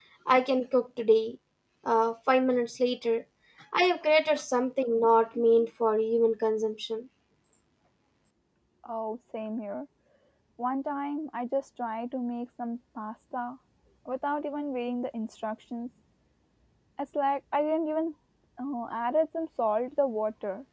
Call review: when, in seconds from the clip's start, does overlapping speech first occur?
none

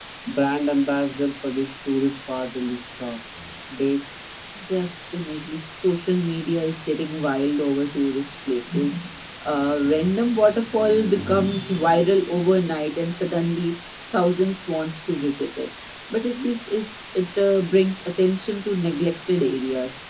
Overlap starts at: none

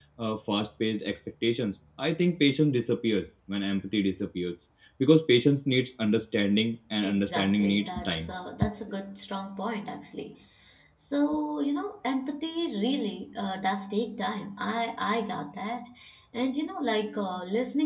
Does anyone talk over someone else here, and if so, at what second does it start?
7.0 s

